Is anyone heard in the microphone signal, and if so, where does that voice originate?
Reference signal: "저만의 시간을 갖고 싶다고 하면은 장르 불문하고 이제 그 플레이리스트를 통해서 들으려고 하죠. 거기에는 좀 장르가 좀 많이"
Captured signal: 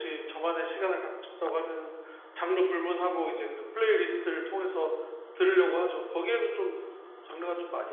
echo only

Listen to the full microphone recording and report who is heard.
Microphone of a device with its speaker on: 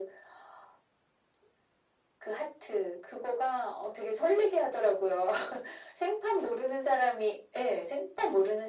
echo only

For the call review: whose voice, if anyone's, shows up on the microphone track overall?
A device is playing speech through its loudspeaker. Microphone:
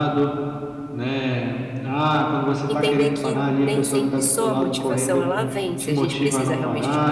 both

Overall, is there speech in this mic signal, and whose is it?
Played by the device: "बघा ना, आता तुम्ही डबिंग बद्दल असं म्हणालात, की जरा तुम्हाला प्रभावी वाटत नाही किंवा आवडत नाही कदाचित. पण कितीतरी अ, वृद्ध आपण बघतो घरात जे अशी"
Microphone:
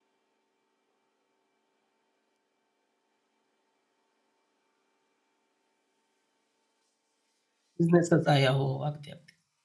user only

